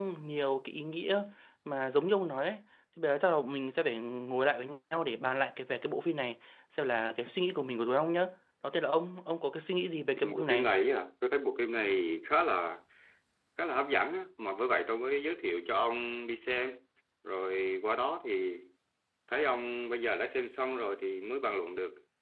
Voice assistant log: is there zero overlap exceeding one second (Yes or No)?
Yes